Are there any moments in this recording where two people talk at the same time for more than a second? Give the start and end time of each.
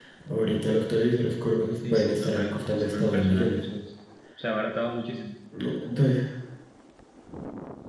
1.8-3.6

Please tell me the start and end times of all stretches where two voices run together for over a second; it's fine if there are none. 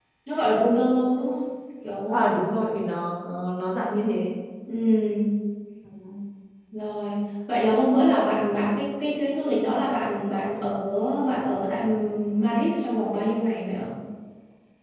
none

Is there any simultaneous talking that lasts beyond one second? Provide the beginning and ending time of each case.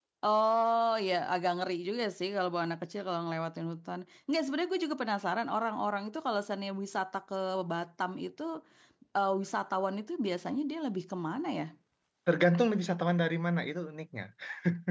none

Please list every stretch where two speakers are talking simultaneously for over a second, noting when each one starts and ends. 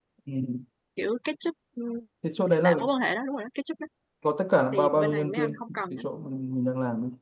4.7-6.0

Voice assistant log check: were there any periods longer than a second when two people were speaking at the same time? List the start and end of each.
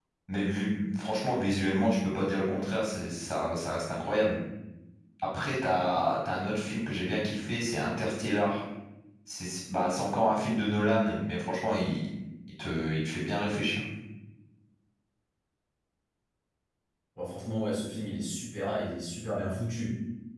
none

